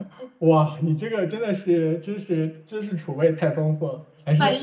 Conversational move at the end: listening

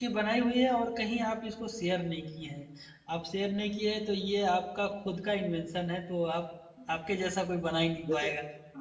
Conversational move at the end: taking over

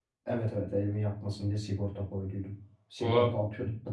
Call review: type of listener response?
listening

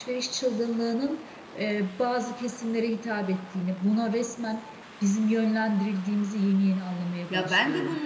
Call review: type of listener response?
taking over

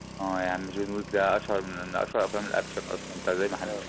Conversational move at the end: taking over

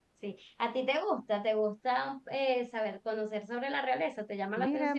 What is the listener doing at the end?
taking over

